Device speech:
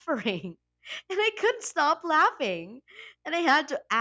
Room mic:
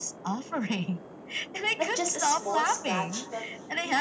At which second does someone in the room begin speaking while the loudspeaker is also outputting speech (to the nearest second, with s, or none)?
2 s